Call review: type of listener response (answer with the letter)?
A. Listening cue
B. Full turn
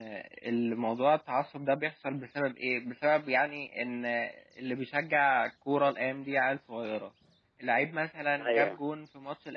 A